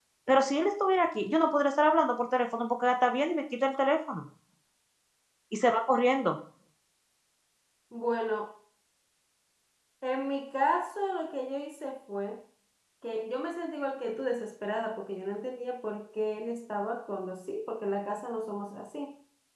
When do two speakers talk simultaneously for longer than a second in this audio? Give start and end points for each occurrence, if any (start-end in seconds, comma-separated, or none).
none